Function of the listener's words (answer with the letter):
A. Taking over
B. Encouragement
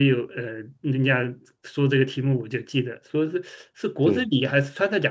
B